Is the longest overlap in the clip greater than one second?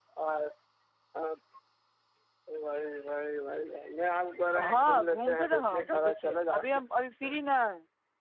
Yes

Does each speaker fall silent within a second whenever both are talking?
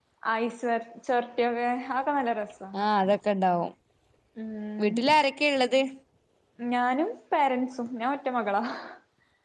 Yes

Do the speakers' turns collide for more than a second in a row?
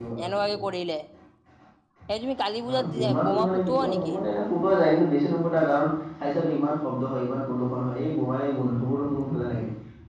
Yes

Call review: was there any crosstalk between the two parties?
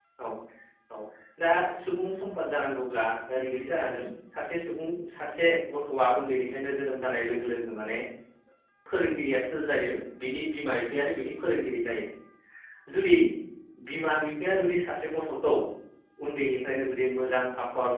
No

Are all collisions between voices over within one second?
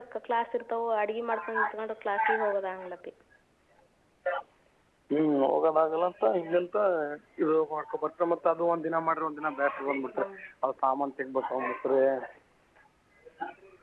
Yes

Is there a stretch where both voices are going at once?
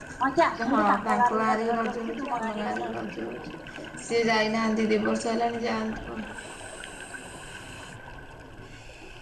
Yes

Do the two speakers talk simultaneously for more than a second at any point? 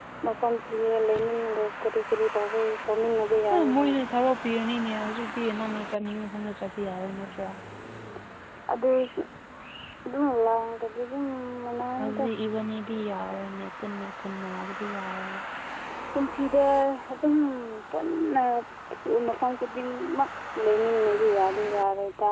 No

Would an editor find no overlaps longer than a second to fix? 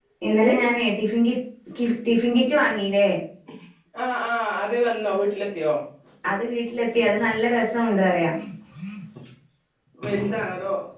Yes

